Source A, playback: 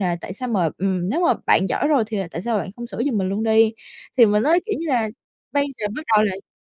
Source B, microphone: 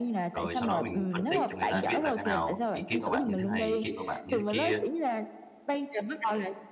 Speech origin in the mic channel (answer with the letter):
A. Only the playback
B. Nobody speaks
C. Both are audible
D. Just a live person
C